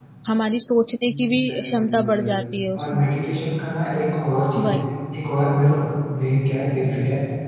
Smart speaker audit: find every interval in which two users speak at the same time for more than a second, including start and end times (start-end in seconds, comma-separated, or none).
1.1-2.4